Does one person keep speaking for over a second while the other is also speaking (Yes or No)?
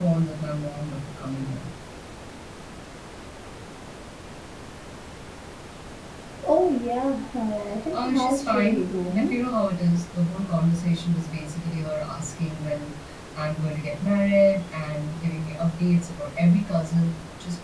Yes